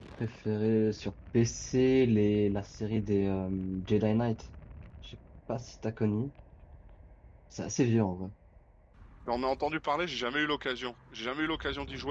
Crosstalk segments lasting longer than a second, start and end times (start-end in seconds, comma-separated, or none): none